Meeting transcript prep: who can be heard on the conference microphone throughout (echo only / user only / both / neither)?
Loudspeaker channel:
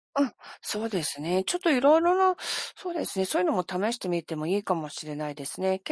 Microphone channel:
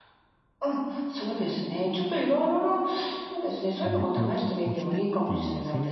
both